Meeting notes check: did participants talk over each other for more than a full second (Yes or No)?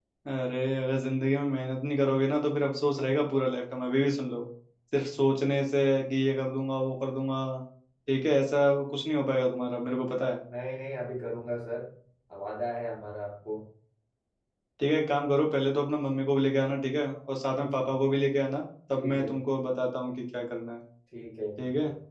No